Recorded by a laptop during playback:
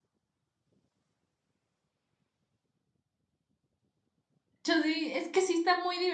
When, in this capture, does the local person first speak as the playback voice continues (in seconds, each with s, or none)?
4.6 s